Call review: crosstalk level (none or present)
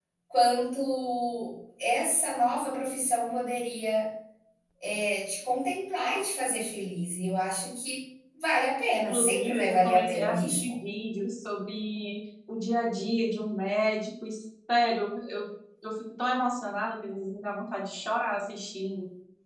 present